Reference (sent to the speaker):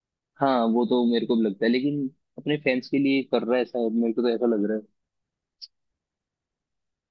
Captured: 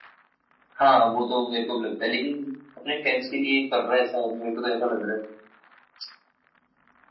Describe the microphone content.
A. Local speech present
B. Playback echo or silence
B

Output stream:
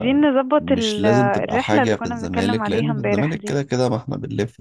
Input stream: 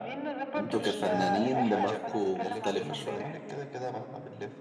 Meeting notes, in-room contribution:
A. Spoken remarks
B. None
A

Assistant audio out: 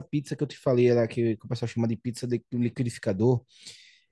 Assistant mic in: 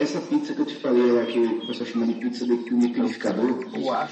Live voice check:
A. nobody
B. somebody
B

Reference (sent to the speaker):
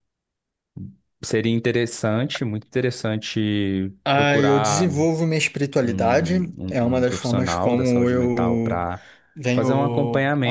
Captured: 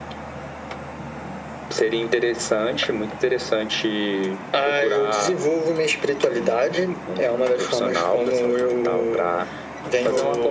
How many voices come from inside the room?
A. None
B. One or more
A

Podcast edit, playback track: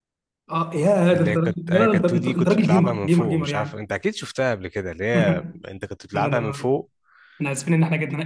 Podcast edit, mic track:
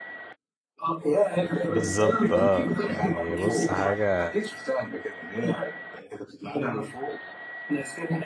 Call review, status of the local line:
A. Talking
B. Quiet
A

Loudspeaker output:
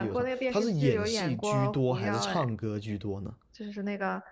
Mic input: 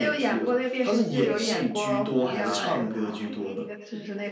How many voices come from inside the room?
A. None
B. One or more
B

